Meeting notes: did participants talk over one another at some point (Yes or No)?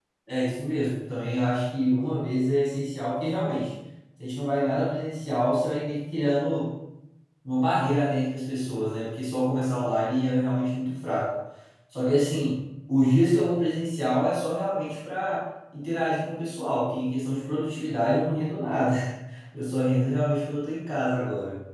No